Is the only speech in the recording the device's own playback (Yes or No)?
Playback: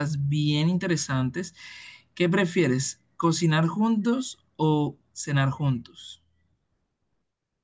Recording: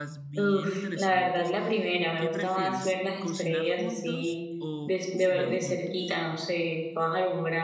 No